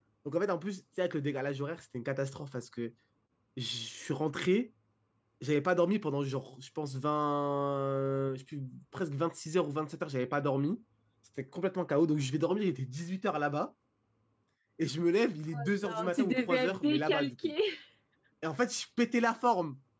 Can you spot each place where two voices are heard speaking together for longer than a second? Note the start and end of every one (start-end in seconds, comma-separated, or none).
15.5-17.3